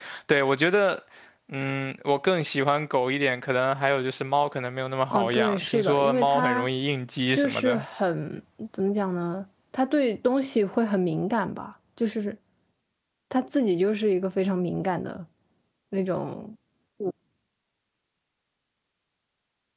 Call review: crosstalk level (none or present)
present